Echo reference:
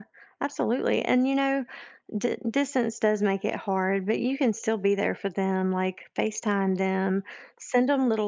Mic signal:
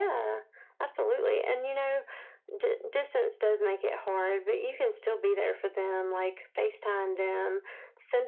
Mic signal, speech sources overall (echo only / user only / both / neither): echo only